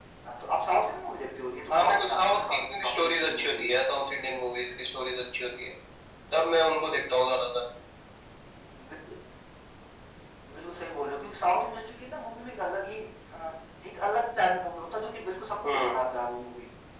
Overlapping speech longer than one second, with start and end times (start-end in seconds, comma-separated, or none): 1.7-3.8